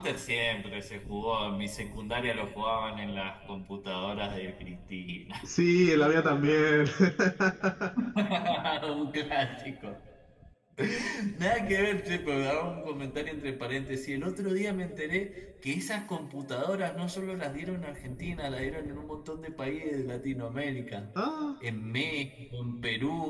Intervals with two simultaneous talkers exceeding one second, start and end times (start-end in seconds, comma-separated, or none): none